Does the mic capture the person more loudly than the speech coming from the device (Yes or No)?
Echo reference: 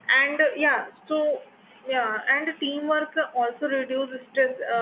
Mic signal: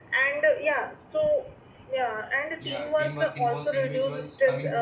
No